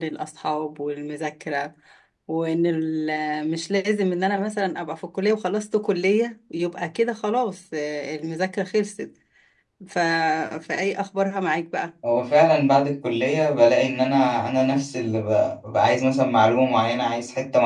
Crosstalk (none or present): none